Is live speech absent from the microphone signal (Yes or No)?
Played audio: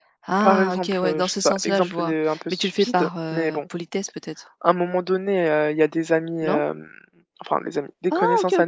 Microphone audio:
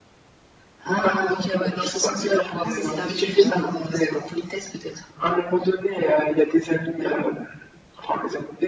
No